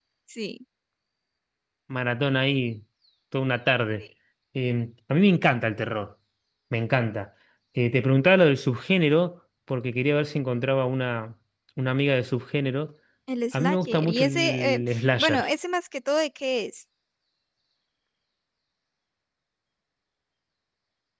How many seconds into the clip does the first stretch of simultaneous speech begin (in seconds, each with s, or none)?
13.5 s